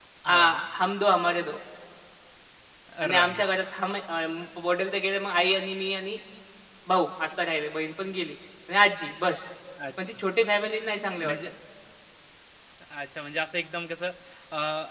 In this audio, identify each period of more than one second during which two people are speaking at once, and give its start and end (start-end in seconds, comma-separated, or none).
none